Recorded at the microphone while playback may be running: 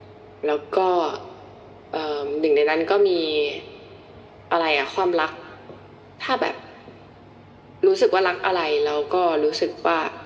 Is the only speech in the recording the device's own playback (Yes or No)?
Yes